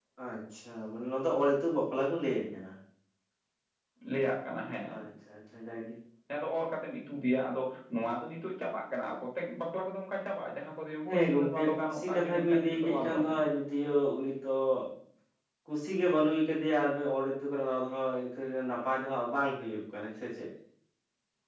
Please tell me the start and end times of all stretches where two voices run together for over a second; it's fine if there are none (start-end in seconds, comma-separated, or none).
11.1-13.4